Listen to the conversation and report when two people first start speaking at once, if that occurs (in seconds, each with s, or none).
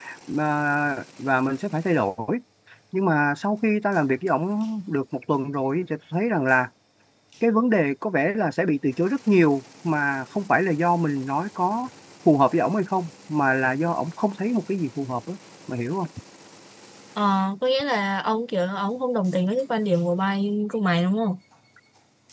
none